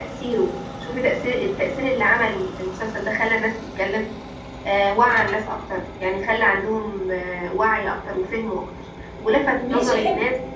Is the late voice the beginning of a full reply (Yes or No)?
No